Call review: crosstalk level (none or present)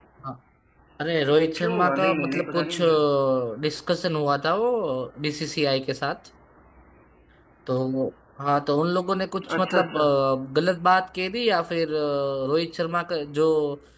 present